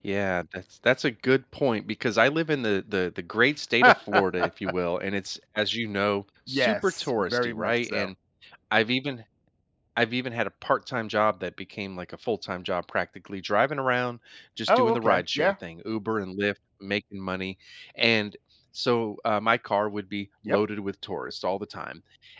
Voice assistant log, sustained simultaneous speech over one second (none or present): present